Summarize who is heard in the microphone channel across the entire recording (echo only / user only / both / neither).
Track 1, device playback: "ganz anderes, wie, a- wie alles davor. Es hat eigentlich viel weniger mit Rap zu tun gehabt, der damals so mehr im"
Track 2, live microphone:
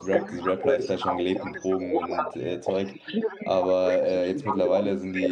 both